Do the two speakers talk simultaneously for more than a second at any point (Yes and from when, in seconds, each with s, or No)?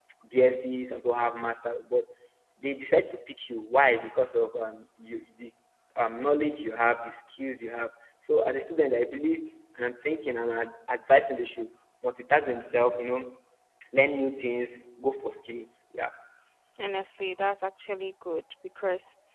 No